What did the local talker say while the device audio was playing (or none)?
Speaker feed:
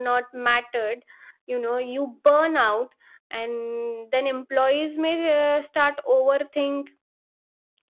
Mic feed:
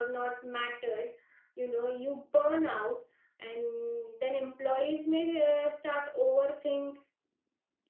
none